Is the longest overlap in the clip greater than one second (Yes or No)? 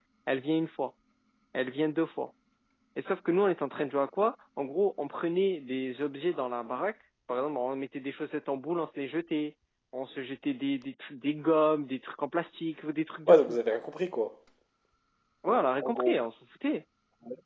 No